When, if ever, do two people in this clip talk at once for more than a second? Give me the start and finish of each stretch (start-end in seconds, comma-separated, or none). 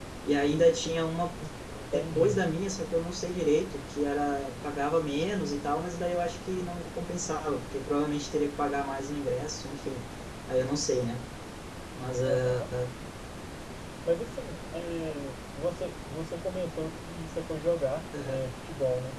none